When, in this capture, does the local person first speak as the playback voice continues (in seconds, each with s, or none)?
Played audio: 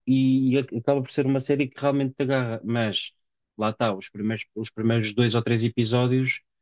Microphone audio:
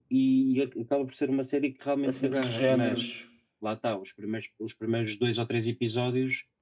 2.0 s